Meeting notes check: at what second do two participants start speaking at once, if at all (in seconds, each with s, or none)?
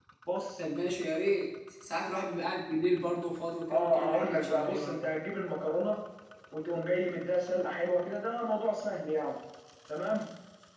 3.7 s